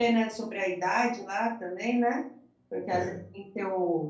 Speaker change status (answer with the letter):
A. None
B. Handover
A